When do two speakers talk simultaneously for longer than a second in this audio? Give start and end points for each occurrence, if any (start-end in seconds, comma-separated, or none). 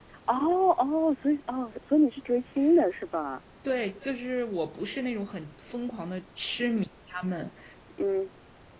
none